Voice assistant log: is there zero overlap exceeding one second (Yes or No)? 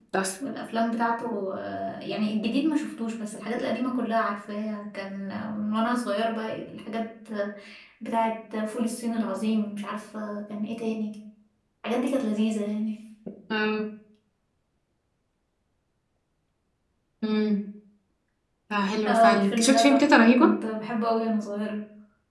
No